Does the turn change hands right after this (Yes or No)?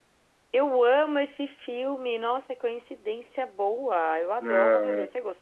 Yes